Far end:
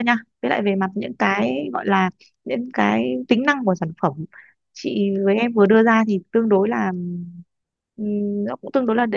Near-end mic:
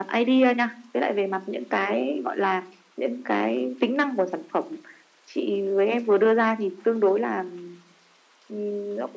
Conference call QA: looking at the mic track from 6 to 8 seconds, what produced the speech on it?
echo only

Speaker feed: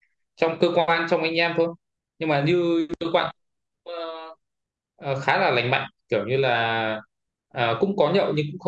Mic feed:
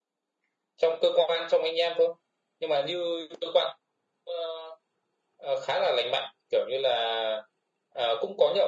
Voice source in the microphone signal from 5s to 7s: echo only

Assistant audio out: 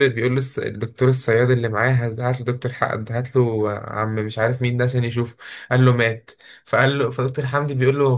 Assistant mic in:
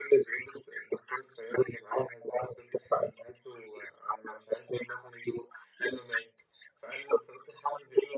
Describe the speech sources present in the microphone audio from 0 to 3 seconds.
echo only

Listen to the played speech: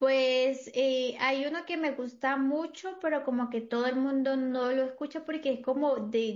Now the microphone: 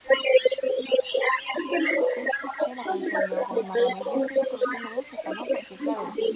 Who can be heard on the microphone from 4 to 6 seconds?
both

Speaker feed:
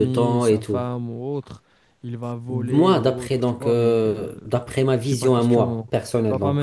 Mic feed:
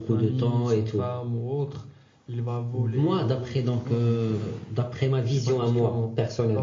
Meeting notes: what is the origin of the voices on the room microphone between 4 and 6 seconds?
echo only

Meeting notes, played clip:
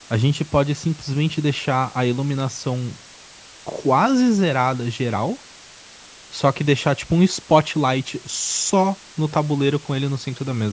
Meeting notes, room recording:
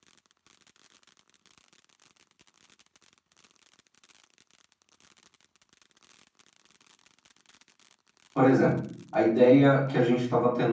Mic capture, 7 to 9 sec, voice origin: user only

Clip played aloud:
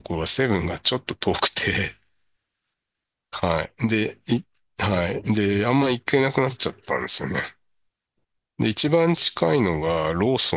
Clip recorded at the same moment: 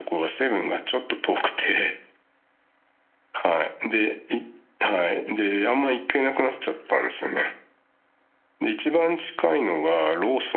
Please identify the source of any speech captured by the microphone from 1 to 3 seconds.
echo only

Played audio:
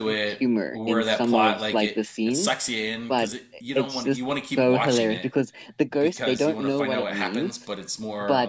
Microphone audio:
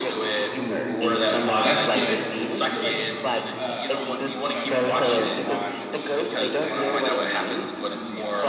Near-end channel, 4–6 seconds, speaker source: both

